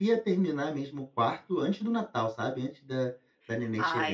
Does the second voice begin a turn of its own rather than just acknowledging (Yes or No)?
No